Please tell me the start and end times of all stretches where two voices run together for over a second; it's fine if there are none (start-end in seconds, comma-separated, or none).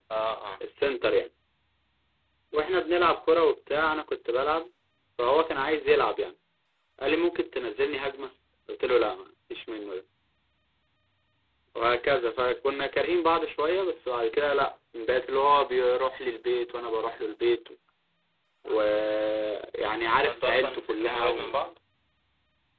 20.2-21.5